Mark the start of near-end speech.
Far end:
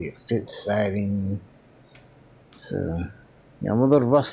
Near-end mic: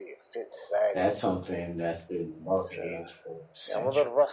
1 s

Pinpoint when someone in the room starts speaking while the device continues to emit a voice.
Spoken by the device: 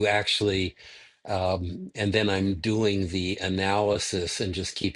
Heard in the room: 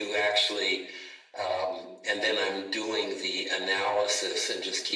none

